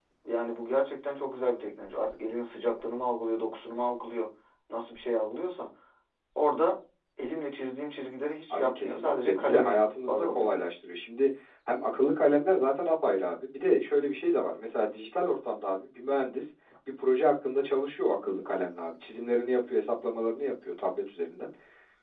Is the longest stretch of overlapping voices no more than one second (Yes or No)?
No